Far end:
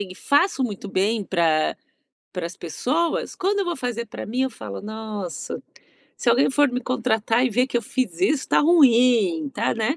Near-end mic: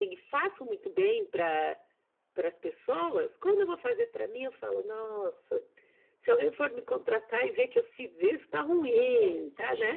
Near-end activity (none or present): present